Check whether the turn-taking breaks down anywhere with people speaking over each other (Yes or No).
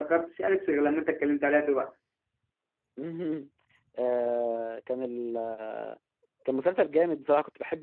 No